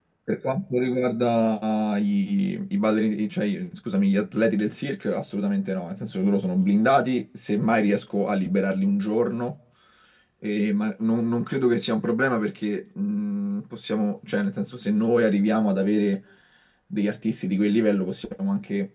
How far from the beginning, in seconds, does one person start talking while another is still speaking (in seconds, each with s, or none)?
none